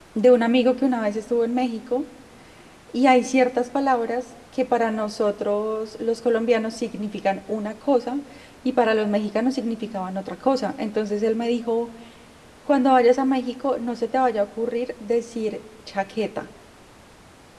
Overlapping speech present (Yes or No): No